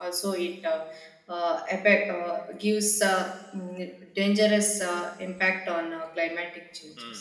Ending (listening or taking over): taking over